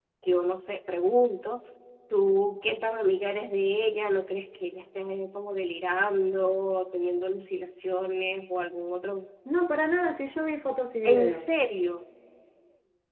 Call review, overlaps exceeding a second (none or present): none